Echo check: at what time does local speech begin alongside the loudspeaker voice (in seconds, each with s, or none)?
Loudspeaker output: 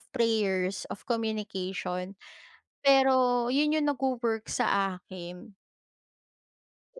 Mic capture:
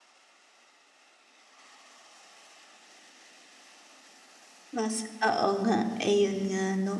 4.7 s